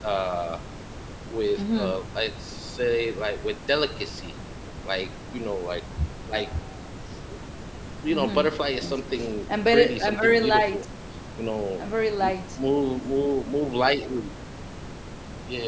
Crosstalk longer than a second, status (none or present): present